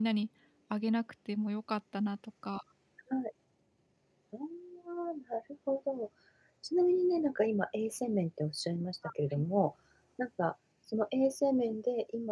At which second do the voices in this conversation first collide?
none

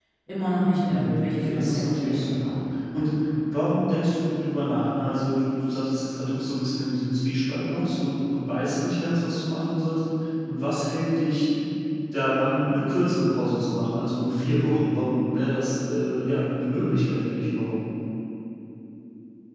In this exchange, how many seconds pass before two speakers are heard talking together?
0.9 s

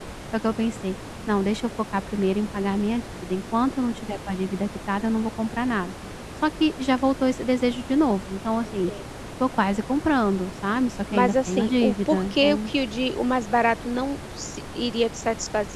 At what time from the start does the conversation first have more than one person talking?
11.1 s

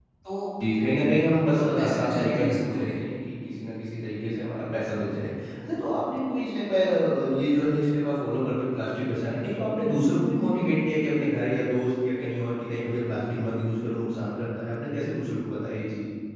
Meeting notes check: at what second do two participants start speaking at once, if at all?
1.5 s

